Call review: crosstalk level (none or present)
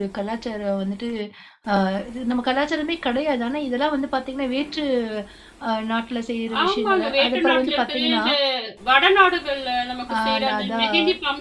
present